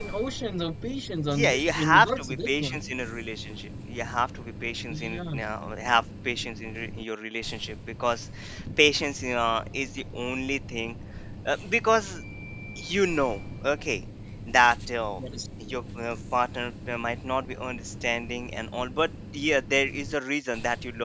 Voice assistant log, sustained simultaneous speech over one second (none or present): present